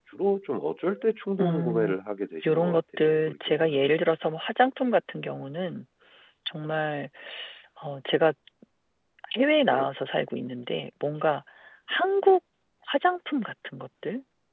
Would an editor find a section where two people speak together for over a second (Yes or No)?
Yes